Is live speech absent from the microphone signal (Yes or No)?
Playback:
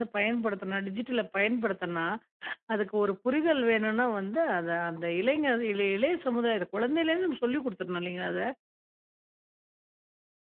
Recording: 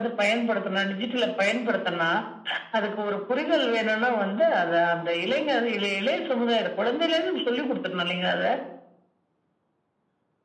Yes